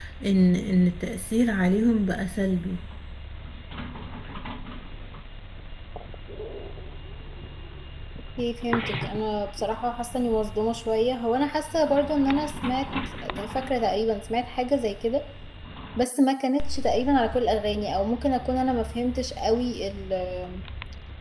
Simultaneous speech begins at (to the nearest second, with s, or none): none